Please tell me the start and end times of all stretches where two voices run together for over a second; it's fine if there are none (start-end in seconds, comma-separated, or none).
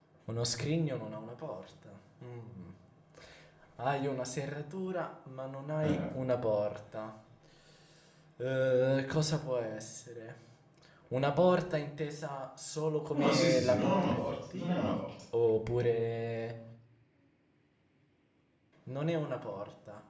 13.1-15.0